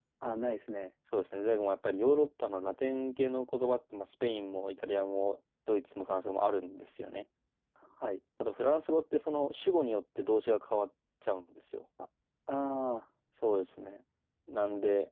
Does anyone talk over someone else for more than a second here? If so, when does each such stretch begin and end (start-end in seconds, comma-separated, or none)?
none